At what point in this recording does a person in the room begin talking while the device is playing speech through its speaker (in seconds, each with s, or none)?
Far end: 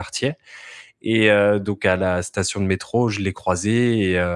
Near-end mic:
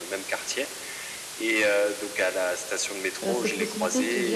3.3 s